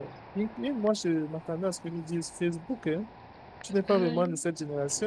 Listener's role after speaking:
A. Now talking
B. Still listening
B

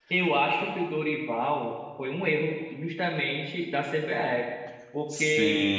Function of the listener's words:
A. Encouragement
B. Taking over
A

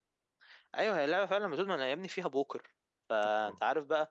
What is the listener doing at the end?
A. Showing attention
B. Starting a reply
A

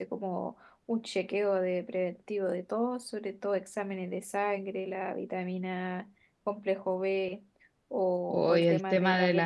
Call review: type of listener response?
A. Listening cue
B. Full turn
B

